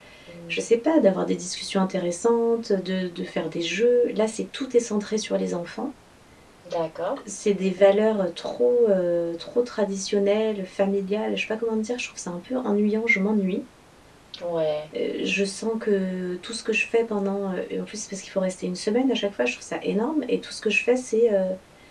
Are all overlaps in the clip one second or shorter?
Yes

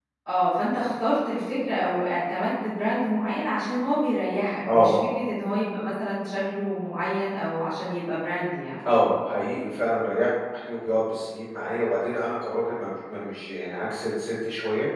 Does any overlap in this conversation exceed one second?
No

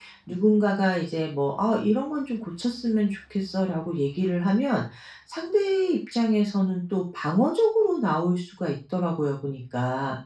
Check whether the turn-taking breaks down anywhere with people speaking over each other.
No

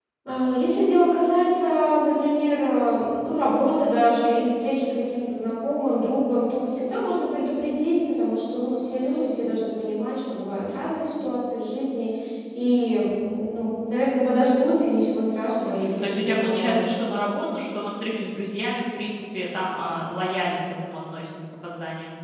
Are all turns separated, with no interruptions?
No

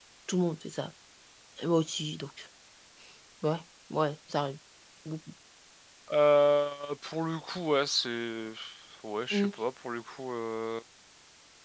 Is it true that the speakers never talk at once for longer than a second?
Yes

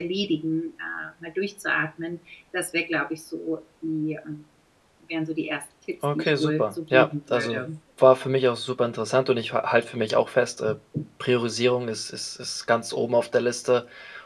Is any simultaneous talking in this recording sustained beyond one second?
Yes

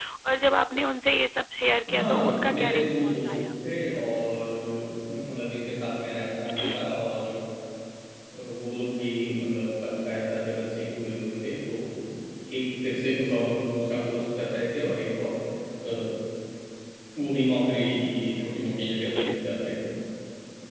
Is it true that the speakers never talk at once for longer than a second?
No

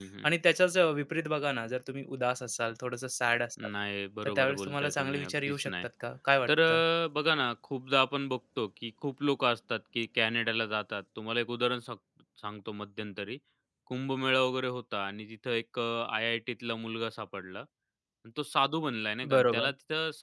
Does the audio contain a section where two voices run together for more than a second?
Yes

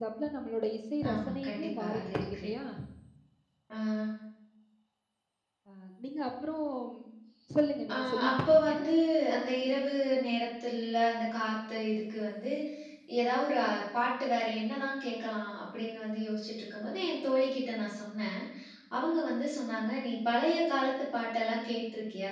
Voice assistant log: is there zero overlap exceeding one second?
No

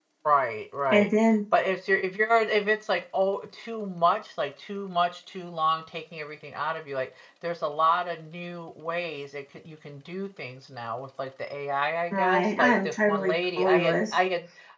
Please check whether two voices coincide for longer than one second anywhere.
Yes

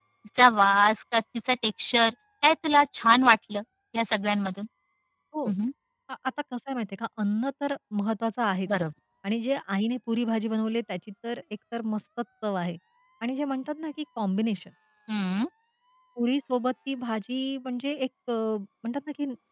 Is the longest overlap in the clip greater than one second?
No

